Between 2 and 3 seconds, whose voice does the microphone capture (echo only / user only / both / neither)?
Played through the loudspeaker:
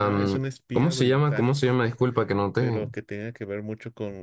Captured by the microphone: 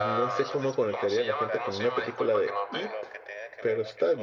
both